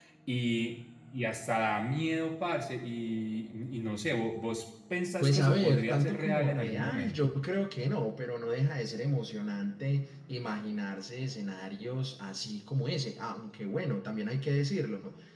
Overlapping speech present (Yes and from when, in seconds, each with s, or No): Yes, from 5.2 s